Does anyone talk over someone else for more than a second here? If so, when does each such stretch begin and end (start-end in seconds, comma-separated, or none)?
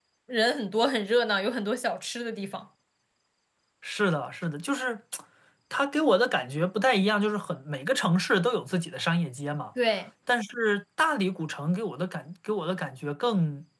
none